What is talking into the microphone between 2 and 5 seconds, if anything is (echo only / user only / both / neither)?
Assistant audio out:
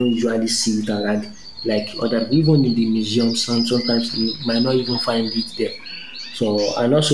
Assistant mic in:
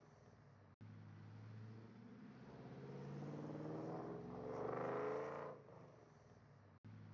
neither